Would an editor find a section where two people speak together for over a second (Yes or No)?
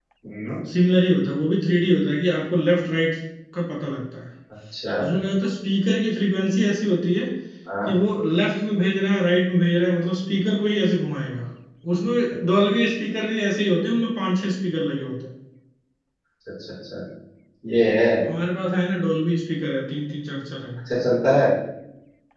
No